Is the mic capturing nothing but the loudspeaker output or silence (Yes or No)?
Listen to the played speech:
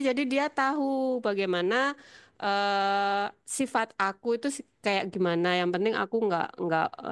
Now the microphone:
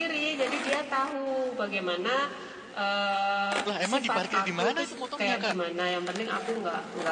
No